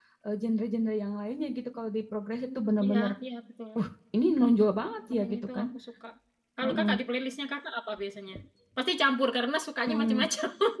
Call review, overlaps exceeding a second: none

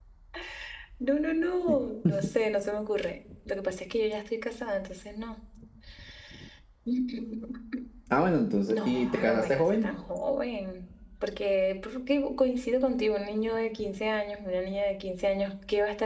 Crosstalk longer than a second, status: present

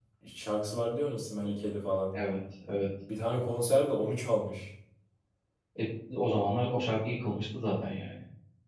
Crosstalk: none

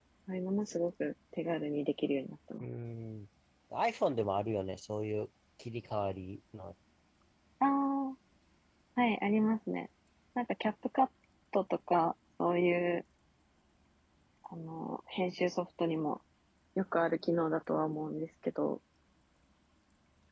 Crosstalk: none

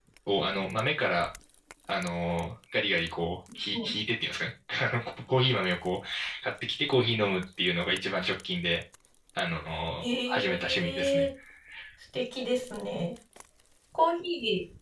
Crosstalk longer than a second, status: present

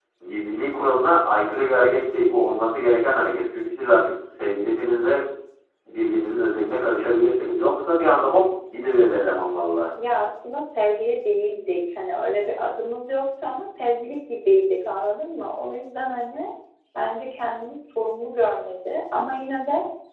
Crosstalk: none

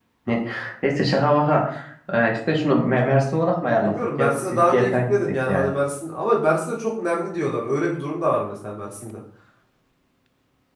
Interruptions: present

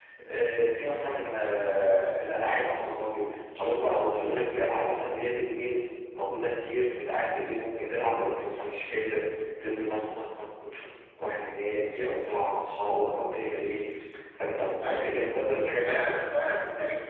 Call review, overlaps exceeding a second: none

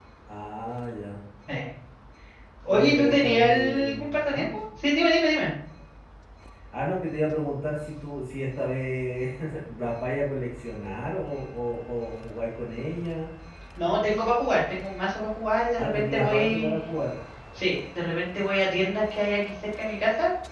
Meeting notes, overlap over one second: present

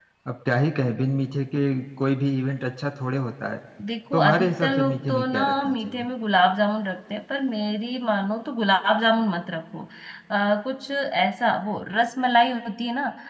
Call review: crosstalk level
present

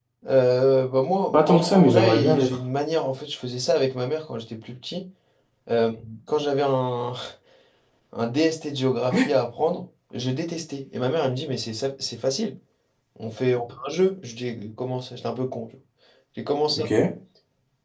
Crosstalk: present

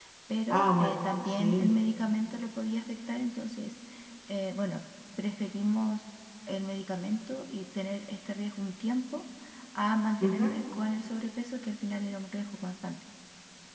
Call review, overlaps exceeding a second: present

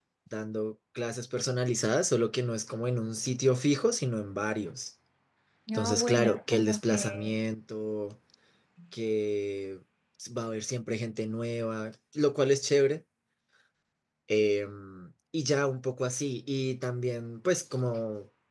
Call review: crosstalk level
present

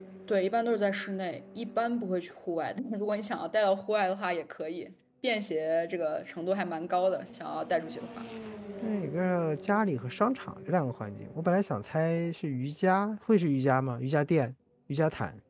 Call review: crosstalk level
none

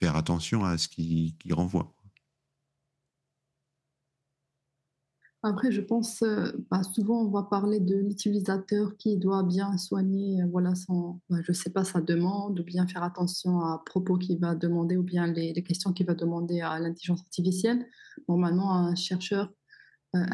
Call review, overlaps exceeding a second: none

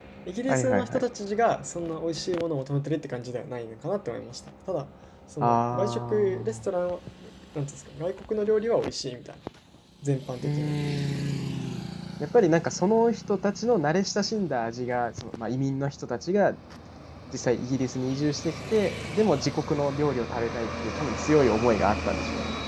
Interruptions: present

